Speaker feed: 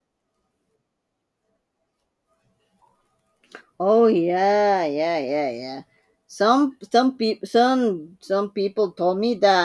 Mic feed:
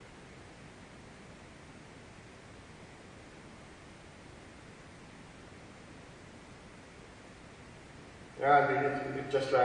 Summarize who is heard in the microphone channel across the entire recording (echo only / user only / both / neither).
user only